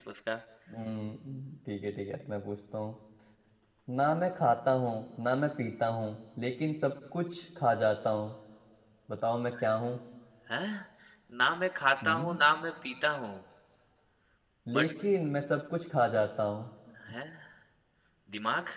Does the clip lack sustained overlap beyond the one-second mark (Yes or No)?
Yes